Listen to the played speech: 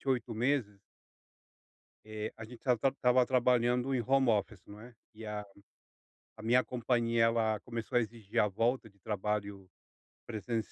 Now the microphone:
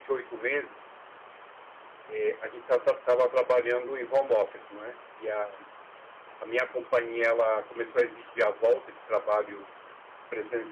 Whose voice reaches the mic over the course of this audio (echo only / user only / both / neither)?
echo only